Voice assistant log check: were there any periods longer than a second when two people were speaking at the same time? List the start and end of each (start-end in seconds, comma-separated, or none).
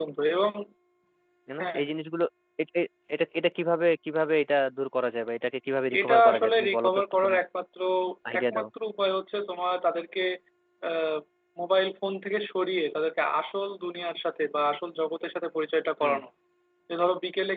6.0-7.3